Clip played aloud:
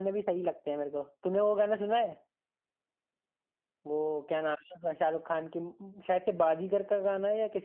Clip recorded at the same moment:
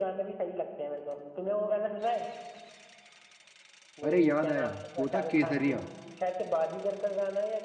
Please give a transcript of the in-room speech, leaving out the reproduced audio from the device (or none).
अरे याद आया वो था केसरिया